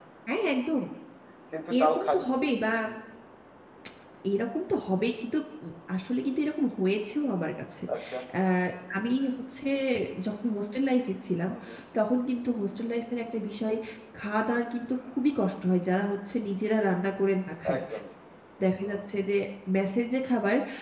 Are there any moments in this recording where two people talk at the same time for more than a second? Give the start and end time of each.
none

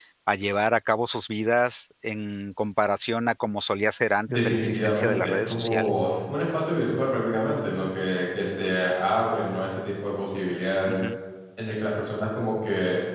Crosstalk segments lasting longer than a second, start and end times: 4.3-6.0

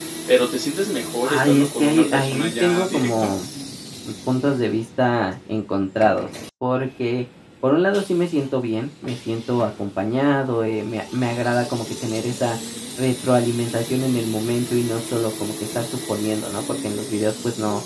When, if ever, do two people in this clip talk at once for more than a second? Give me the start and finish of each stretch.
1.2-3.3

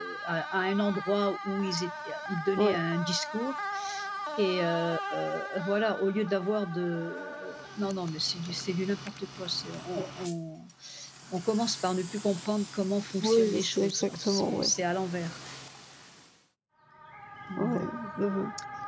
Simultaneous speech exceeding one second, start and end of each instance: 13.2-14.7

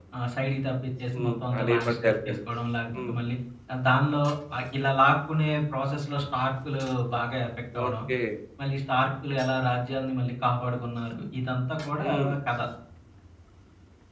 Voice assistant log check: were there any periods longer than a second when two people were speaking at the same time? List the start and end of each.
1.1-2.4

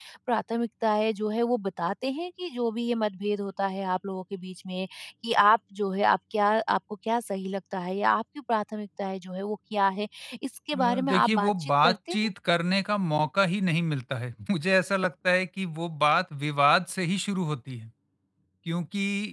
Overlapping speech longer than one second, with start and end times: 10.7-12.3

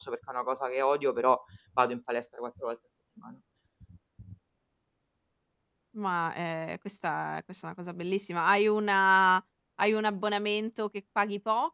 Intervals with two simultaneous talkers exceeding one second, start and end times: none

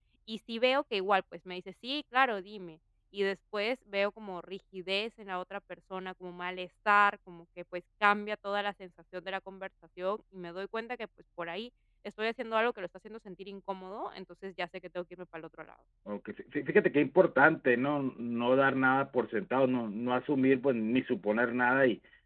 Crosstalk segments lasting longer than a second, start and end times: none

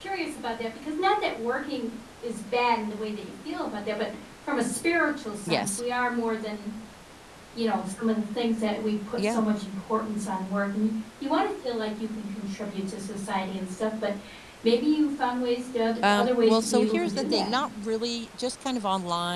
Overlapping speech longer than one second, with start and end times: 16.1-17.5

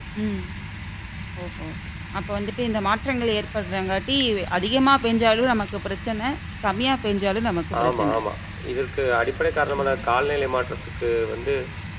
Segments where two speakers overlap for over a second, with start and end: none

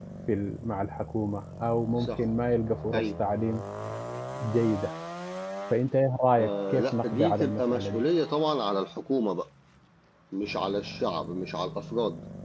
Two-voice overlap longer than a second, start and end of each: 6.4-8.0

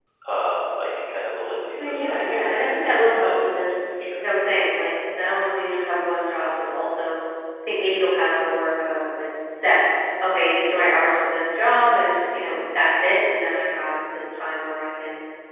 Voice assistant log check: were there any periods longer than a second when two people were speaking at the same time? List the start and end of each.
1.8-3.7

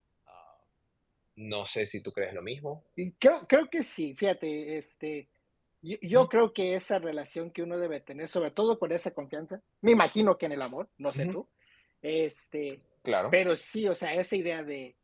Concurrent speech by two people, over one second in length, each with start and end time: none

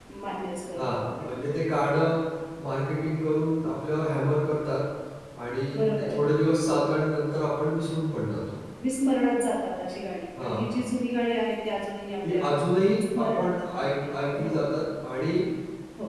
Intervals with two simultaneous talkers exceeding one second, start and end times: 13.2-14.6

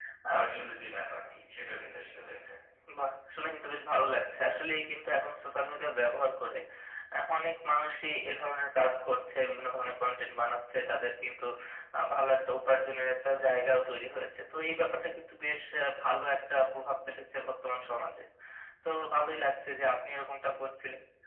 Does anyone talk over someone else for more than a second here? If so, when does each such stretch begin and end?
none

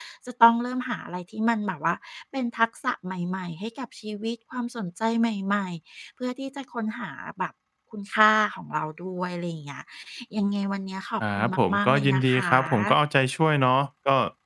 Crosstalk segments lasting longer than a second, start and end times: 11.4-13.0

